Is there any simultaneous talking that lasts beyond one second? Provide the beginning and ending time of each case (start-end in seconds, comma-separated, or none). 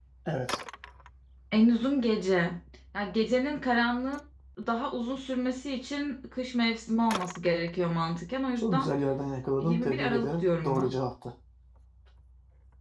9.6-10.9